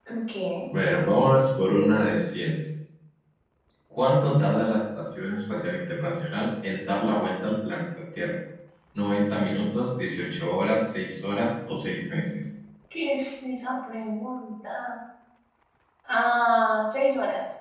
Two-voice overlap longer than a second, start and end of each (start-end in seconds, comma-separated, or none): none